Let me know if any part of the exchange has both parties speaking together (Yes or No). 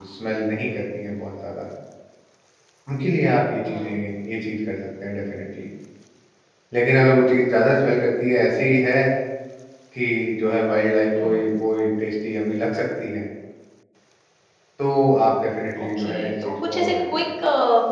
Yes